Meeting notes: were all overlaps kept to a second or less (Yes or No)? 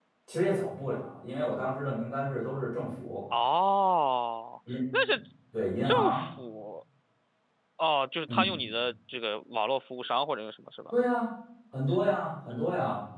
Yes